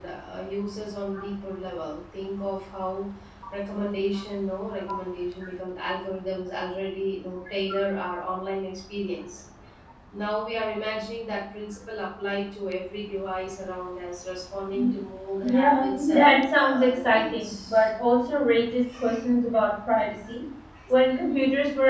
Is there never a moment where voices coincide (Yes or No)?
No